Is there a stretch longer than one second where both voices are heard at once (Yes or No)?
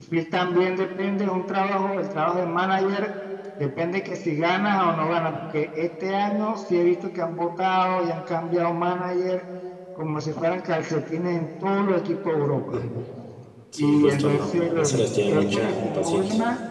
Yes